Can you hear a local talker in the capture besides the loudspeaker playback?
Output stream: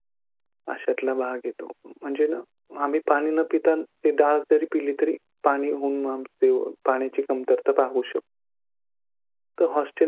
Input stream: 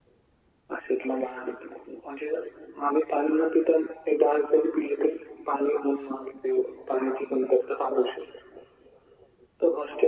No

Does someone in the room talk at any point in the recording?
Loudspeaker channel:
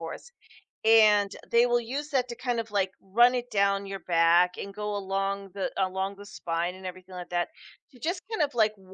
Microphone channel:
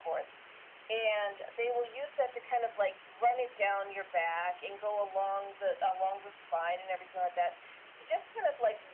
No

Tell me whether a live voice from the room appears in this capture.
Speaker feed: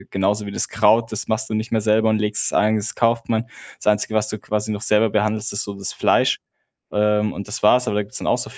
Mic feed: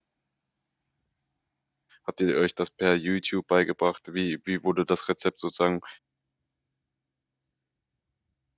Yes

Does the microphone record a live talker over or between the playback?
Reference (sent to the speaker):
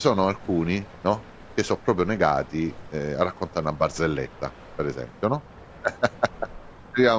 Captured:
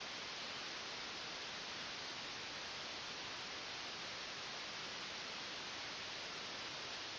No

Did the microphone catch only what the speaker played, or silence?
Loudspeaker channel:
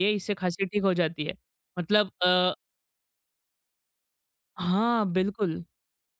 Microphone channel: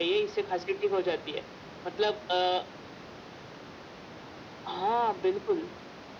Yes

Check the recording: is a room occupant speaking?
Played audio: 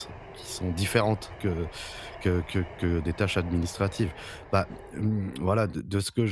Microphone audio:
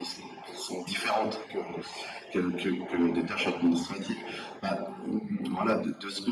No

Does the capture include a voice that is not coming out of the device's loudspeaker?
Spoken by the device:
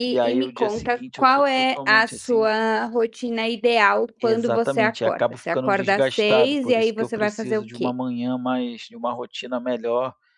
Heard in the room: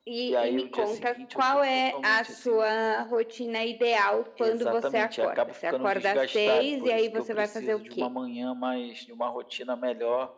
No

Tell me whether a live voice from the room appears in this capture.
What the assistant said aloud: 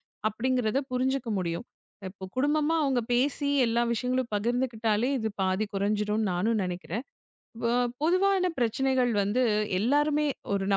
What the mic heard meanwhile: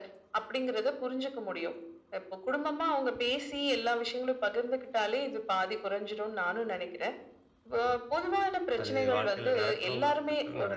Yes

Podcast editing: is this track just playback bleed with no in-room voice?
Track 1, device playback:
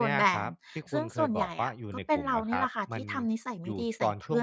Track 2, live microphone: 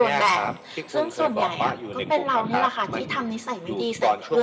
Yes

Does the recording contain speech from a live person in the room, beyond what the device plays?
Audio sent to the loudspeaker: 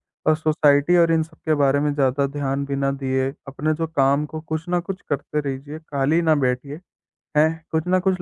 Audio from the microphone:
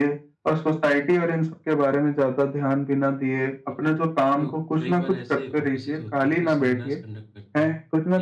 Yes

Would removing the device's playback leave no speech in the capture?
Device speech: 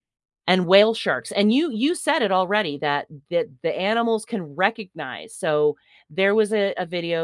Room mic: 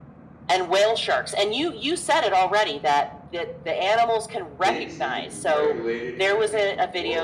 No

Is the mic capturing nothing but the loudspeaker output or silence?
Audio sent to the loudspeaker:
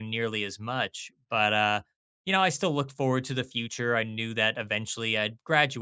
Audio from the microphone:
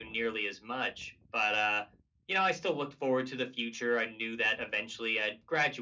Yes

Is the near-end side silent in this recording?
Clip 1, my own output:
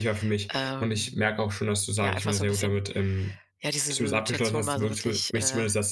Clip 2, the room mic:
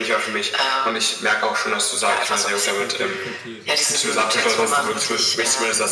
No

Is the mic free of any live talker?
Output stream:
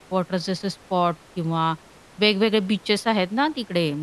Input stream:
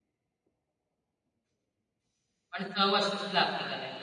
No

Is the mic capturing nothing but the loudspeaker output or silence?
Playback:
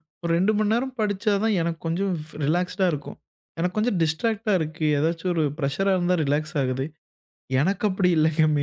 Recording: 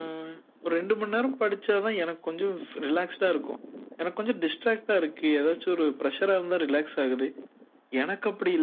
Yes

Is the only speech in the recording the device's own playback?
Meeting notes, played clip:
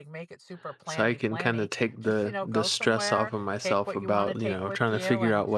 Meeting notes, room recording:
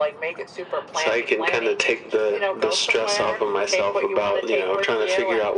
Yes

